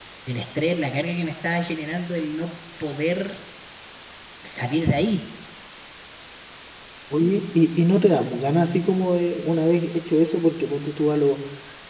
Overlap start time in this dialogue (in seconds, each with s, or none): none